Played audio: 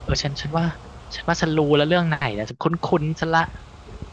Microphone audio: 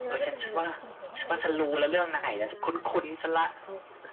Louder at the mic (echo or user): echo